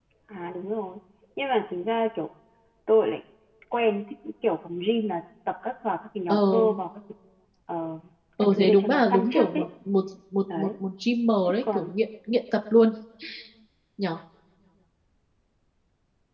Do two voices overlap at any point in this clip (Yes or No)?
Yes